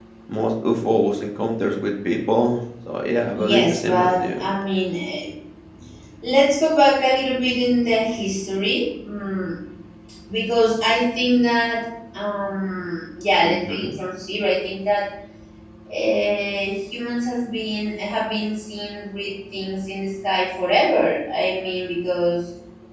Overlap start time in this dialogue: 3 s

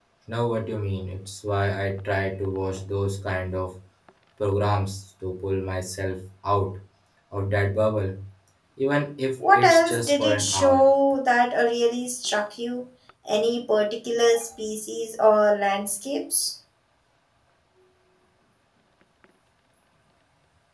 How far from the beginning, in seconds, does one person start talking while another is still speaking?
10 s

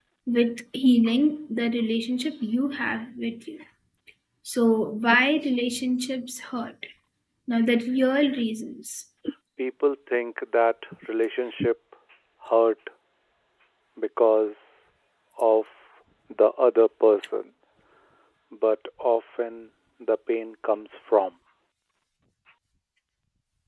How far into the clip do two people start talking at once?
none

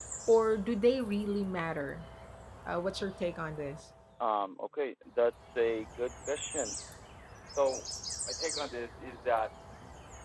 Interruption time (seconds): none

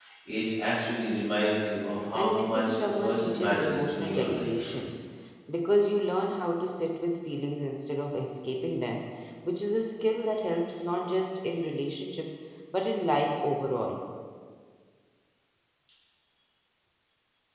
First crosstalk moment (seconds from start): 2 s

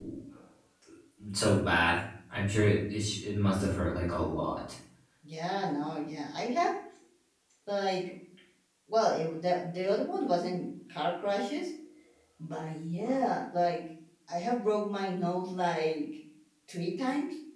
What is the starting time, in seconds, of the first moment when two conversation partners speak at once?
none

